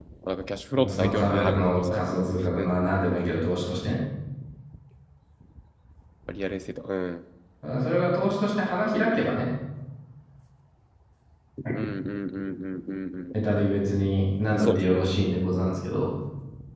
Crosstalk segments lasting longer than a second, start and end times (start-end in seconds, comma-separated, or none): 0.9-2.6